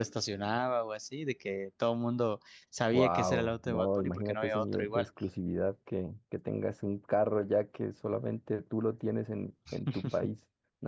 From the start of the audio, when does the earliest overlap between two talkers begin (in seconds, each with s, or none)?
2.9 s